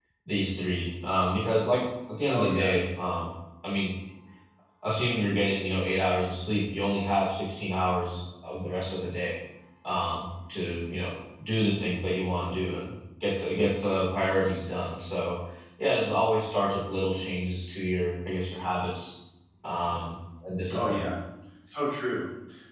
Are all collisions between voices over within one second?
Yes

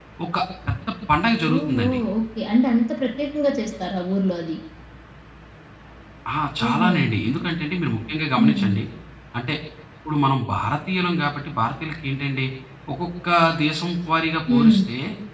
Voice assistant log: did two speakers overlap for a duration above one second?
No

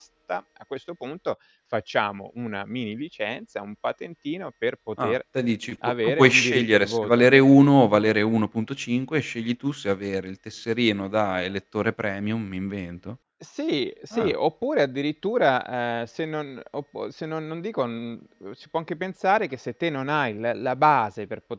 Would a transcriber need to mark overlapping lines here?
Yes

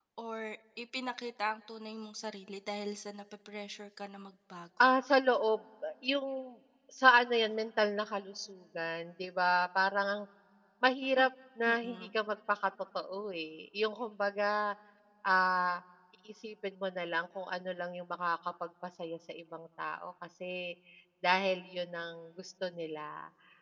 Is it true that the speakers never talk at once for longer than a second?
Yes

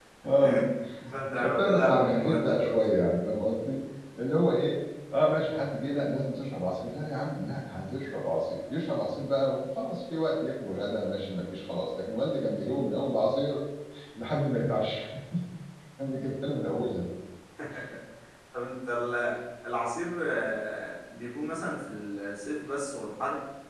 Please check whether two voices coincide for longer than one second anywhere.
Yes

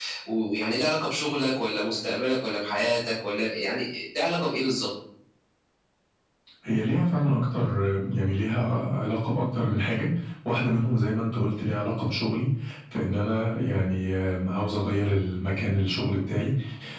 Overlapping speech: No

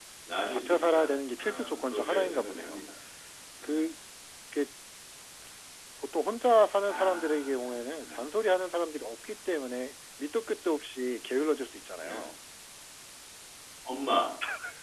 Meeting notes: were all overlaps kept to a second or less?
No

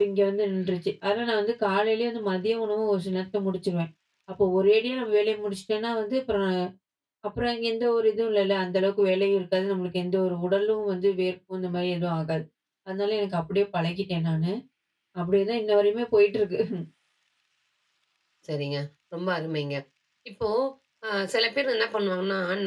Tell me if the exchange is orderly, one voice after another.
Yes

